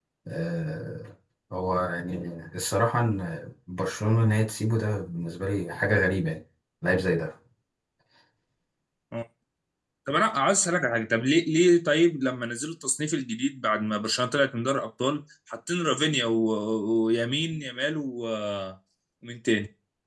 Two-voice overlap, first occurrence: none

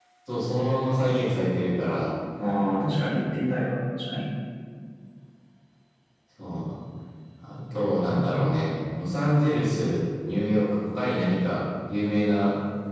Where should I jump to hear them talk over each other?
none

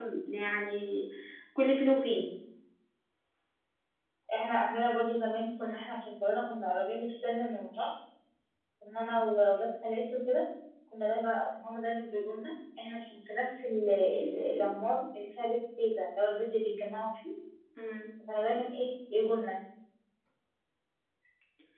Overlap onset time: none

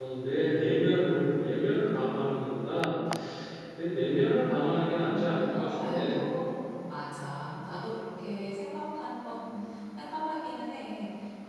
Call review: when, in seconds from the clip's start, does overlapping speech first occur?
5.0 s

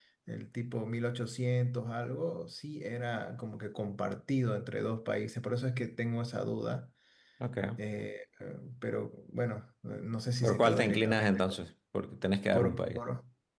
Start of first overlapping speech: 10.4 s

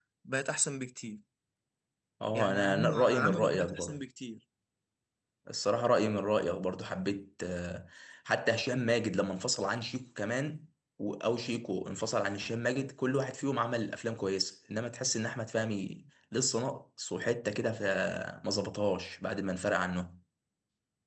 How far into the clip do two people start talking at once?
2.3 s

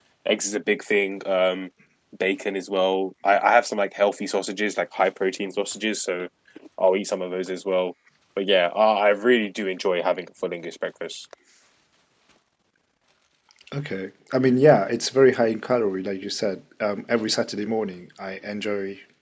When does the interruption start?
none

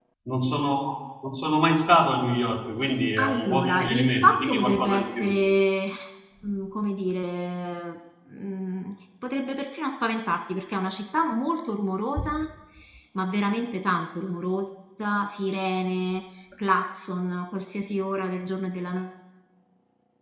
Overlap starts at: 3.2 s

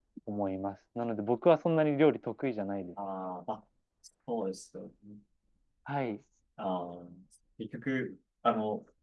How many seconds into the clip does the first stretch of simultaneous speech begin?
none

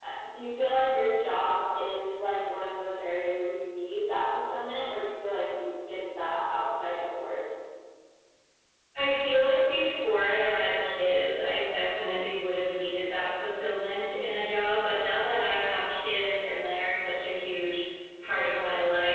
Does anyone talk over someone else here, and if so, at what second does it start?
none

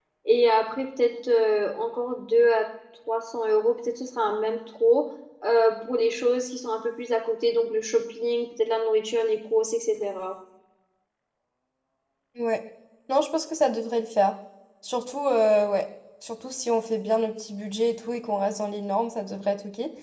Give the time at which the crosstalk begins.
none

